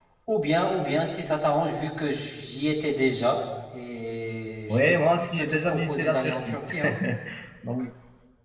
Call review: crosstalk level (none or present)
present